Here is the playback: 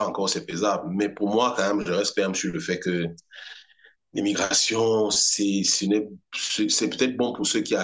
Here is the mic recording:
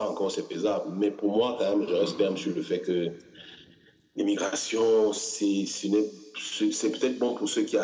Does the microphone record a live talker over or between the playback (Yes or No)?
Yes